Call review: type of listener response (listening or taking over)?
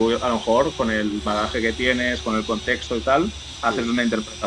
listening